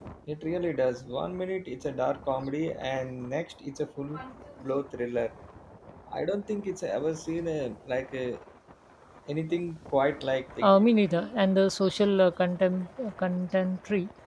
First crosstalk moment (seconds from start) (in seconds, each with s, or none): none